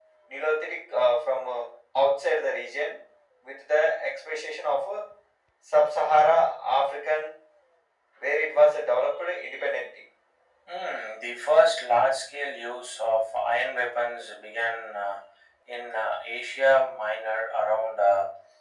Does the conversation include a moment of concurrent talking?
No

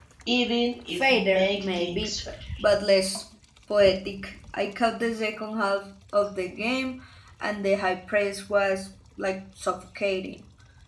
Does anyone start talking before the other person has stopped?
Yes, from 0.9 s

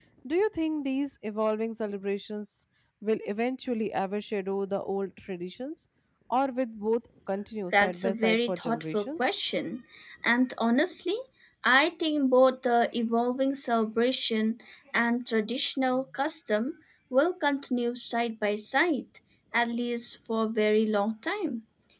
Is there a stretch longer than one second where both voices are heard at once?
Yes, from 7.7 s

